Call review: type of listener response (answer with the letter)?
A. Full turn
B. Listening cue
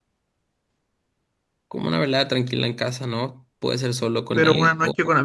A